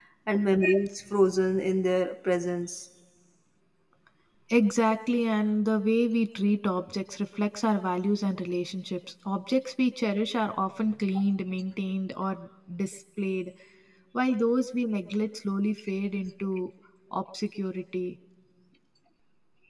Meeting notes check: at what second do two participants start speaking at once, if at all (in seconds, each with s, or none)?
none